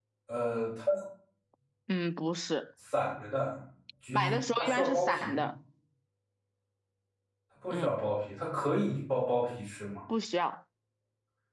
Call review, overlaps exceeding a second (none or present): present